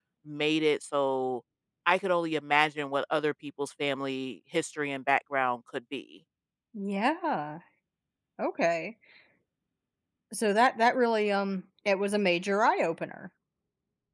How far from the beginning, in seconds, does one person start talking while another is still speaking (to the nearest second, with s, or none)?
none